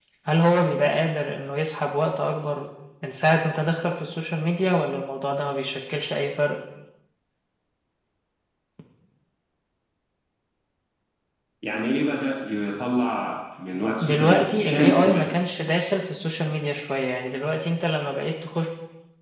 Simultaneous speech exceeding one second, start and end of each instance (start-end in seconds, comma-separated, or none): 14.0-15.3